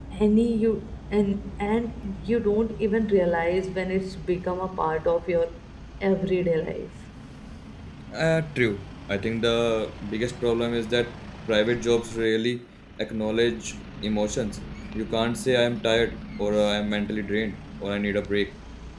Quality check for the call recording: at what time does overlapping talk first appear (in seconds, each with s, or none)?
none